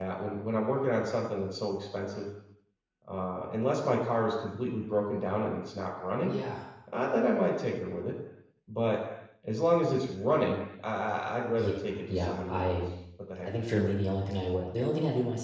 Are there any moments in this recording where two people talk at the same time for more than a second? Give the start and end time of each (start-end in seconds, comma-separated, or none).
11.6-12.8